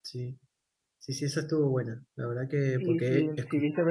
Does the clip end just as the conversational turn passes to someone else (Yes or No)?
Yes